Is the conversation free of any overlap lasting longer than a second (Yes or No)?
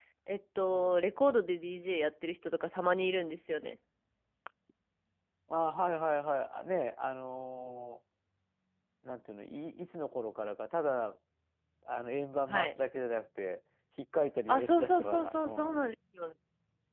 No